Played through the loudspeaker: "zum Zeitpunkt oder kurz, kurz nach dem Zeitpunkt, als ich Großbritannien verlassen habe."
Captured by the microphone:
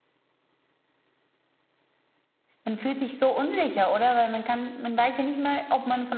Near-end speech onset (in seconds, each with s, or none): 2.6 s